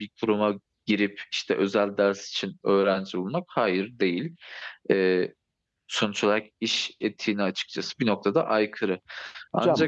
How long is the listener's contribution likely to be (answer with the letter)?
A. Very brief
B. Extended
B